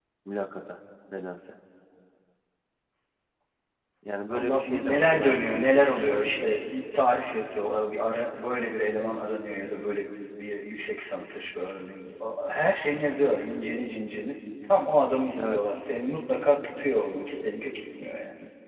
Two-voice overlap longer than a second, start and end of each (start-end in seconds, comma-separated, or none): 4.3-5.6